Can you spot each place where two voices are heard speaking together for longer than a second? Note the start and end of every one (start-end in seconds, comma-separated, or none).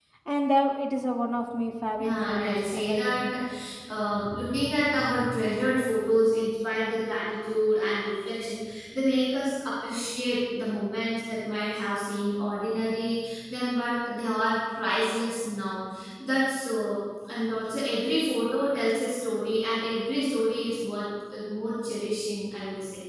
2.0-3.2